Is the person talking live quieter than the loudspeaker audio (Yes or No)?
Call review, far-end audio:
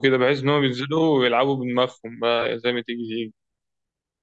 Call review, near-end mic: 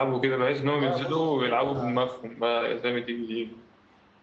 Yes